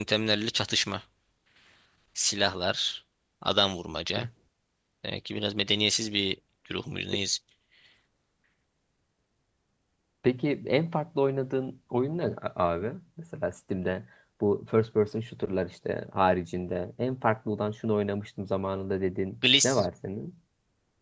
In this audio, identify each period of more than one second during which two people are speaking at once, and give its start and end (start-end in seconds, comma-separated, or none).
none